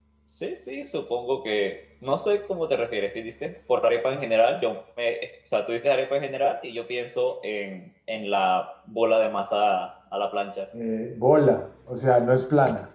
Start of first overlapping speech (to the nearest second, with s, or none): none